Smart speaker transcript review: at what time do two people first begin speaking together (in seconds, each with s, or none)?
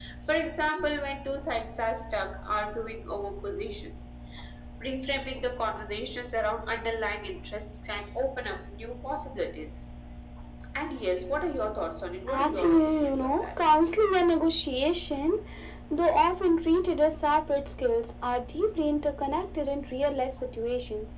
12.3 s